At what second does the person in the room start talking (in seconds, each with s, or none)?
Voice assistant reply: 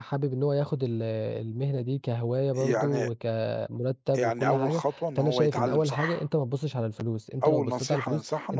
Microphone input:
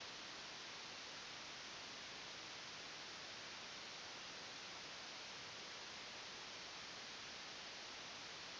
none